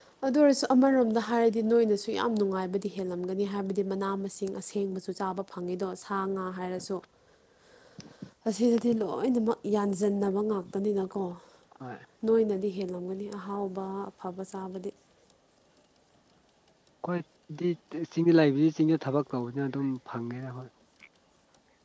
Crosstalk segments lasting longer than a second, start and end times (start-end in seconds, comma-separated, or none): none